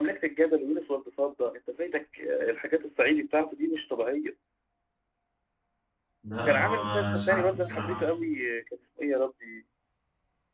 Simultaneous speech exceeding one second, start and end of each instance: 6.5-8.0

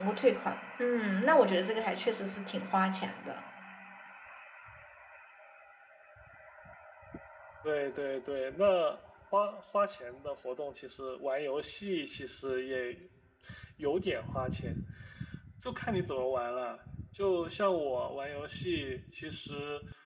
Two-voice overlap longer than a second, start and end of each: none

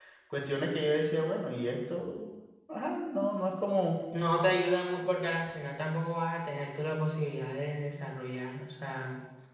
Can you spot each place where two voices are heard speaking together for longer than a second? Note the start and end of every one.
none

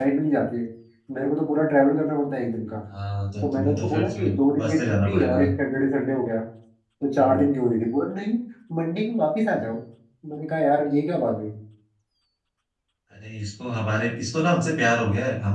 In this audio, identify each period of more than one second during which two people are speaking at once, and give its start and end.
3.4-5.4

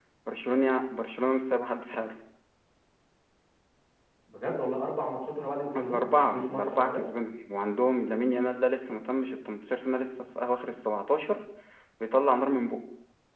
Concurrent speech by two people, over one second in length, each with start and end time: 5.8-7.0

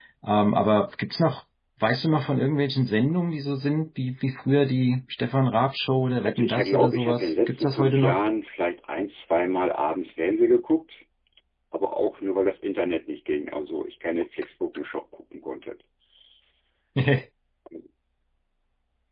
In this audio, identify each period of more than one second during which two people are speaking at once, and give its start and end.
6.2-8.2

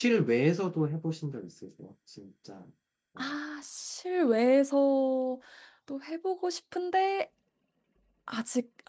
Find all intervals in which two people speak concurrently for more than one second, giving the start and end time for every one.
none

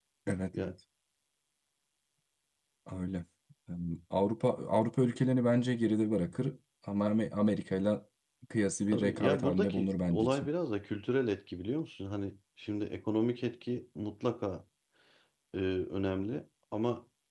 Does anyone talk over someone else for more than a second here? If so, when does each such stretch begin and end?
8.9-10.5

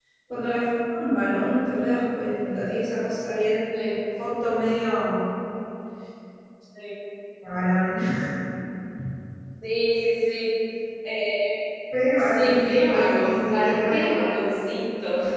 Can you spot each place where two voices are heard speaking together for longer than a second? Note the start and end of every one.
12.2-14.2

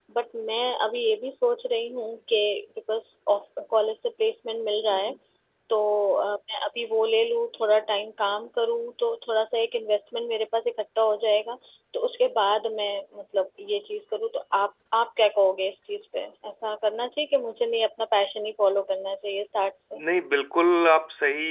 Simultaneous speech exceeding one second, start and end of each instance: none

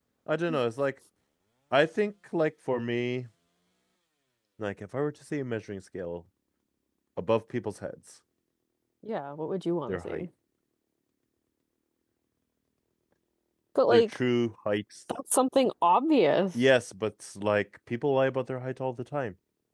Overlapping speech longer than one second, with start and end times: none

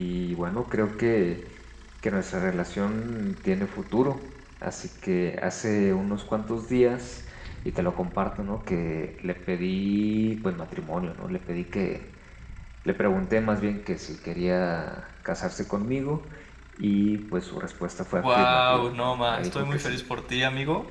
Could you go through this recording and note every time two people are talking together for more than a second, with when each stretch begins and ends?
18.1-20.0

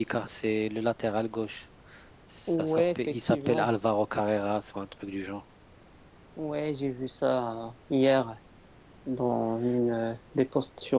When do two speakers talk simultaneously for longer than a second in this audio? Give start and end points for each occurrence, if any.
2.5-3.7

